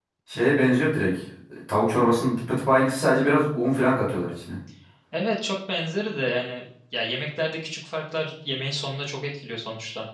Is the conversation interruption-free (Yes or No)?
Yes